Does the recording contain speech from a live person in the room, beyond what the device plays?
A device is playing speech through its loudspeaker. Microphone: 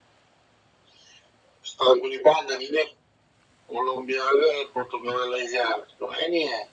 No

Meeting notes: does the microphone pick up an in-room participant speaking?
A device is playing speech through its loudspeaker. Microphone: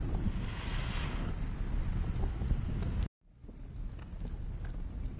No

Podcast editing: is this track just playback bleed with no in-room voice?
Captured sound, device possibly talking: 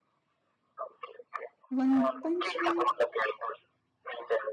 No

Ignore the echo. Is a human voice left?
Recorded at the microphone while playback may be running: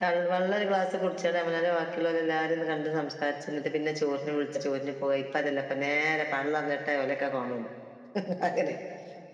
Yes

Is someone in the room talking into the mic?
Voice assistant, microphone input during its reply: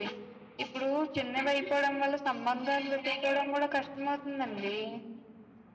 No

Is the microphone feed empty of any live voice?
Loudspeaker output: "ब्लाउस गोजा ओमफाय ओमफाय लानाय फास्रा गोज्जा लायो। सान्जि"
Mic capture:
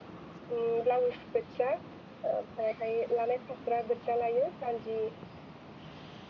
Yes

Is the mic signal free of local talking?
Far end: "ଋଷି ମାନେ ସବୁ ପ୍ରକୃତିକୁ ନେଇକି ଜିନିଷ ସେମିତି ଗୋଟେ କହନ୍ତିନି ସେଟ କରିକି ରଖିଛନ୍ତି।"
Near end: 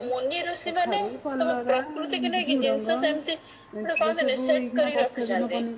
No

